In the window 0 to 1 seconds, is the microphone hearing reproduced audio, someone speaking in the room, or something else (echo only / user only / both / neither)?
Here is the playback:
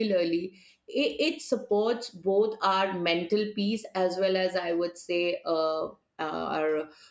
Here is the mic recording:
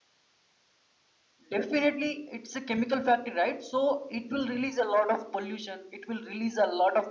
neither